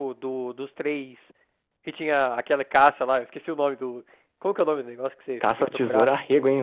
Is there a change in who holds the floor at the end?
Yes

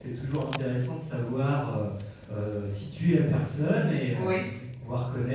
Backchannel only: Yes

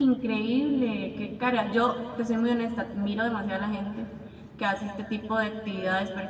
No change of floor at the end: Yes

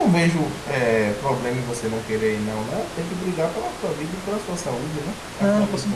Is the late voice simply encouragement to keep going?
No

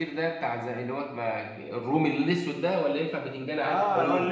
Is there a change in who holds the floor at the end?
Yes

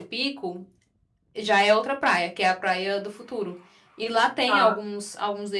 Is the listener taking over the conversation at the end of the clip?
No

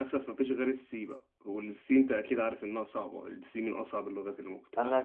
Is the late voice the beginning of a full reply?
Yes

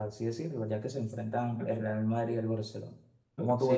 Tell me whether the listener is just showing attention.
No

